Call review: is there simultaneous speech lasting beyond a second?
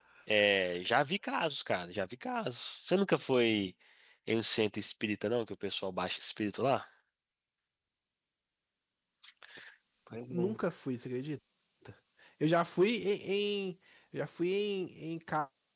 No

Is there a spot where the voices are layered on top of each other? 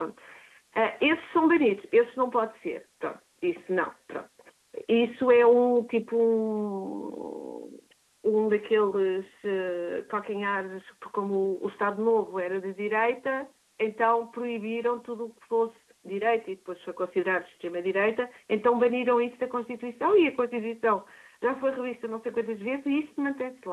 No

